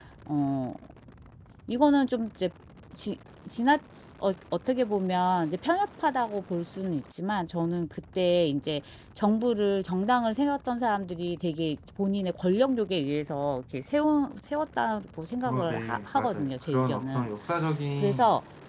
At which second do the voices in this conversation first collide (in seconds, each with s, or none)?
15.4 s